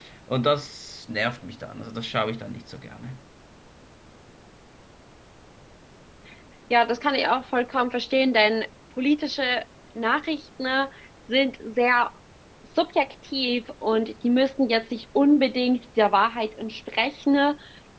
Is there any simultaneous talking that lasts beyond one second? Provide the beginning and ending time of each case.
none

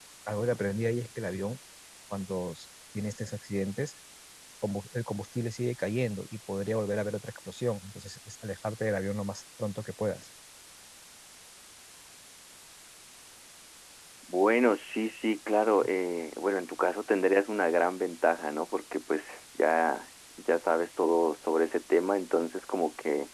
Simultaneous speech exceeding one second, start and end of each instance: none

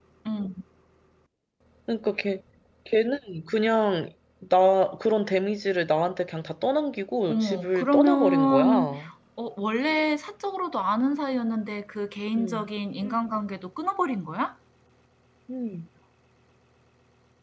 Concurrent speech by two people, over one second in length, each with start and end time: 7.3-8.9

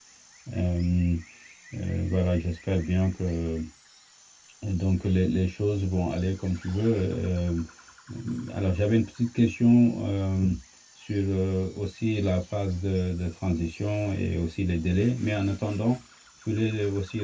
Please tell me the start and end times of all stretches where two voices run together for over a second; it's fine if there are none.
none

